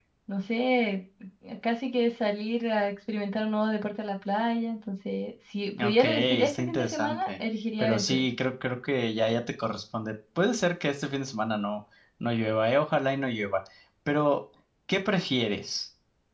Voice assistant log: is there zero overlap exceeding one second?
No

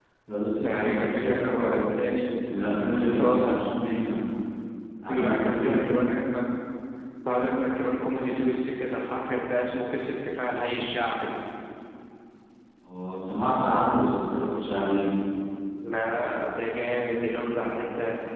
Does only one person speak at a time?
No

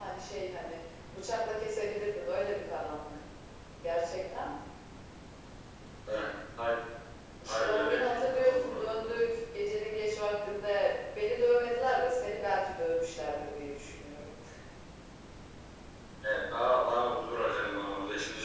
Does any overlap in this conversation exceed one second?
Yes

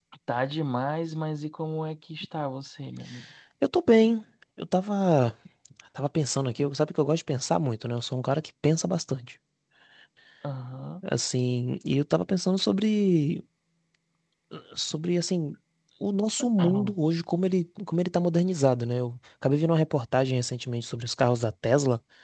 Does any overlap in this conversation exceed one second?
No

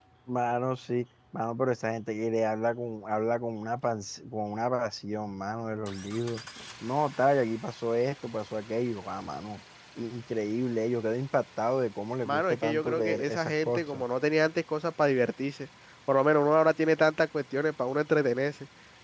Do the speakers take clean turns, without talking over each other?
No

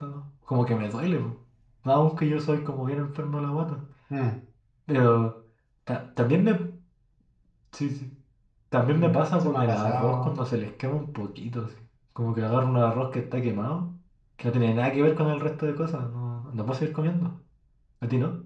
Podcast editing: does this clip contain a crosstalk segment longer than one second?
Yes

